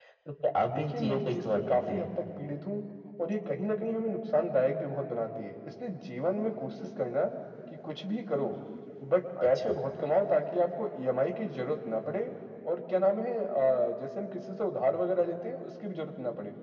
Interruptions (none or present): present